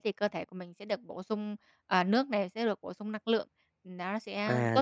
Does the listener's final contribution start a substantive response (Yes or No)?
Yes